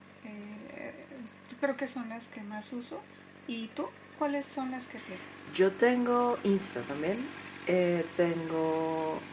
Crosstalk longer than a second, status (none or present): none